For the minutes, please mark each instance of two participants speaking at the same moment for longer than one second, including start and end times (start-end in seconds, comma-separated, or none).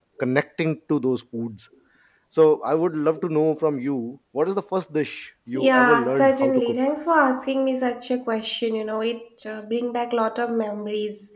5.5-6.8